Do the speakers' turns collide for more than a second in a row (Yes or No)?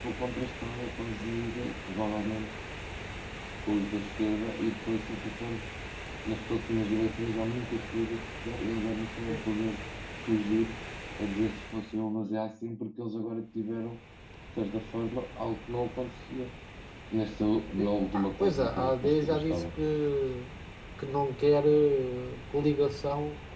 Yes